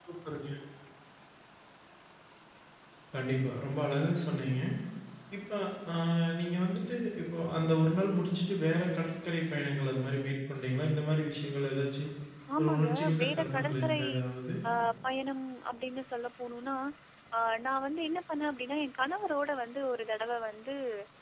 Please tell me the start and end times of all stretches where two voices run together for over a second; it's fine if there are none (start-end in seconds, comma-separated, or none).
12.6-14.0